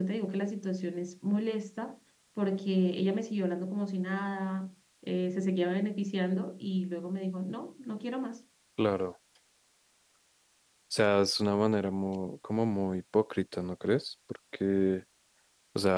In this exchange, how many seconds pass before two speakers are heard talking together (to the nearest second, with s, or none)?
none